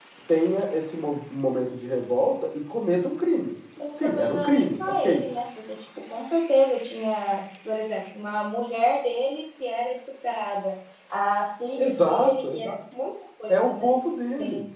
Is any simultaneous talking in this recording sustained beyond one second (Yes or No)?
Yes